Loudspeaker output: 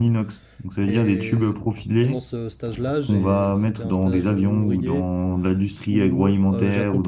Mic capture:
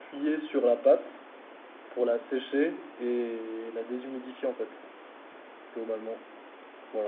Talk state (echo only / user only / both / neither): user only